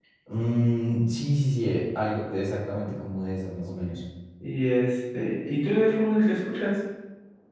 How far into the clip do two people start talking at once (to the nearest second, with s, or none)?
none